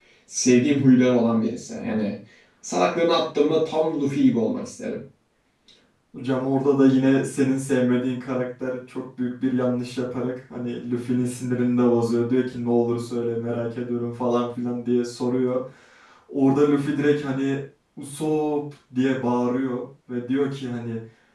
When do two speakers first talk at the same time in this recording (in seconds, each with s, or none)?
none